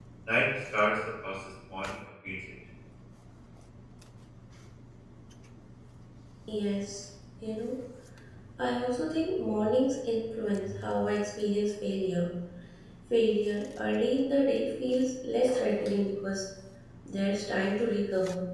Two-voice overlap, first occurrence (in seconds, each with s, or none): none